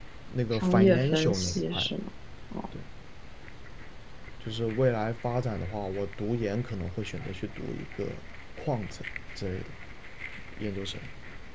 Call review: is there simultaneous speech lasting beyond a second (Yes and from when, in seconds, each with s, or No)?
Yes, from 0.5 s